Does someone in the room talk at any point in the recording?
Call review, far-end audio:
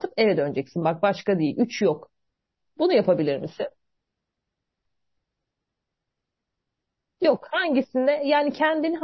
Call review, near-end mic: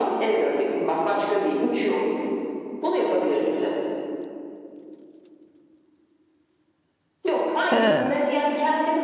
Yes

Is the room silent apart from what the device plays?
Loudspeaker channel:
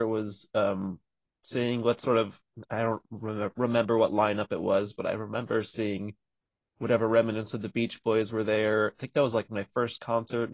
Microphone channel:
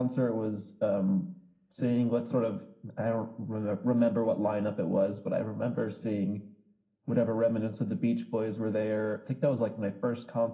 Yes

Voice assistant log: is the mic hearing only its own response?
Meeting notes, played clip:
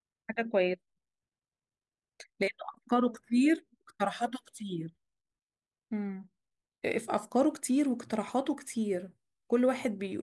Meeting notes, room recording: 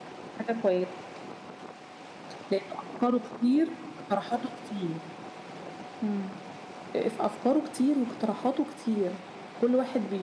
Yes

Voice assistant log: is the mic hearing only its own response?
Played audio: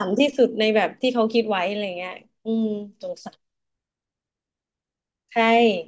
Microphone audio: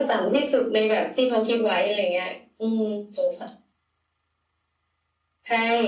Yes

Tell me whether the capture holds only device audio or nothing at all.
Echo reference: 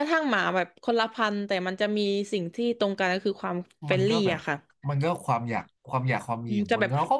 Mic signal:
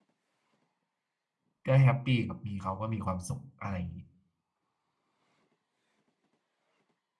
No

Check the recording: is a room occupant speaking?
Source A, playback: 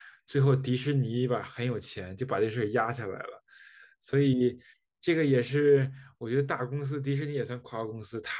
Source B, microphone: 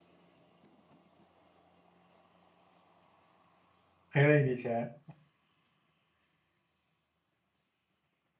Yes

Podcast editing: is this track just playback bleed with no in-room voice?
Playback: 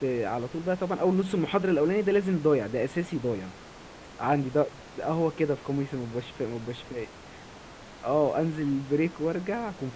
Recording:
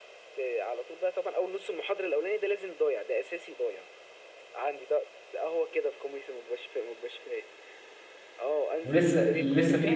No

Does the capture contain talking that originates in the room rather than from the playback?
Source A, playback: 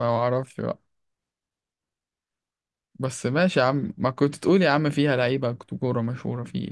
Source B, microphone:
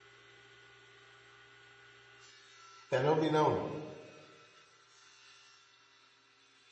Yes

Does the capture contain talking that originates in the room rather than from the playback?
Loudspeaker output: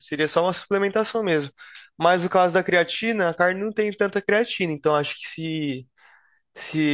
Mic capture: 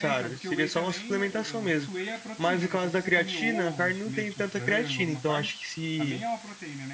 Yes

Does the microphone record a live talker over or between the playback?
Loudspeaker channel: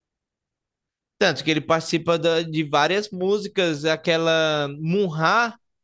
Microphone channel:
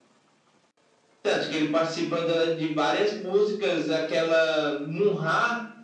No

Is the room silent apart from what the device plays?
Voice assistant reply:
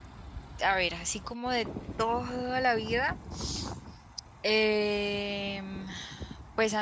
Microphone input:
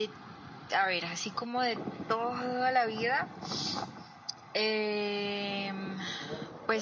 No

